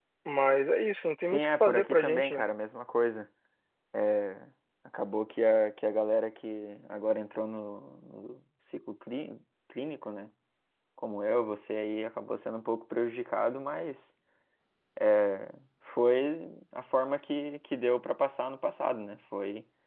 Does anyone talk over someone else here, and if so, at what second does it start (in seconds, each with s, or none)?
1.2 s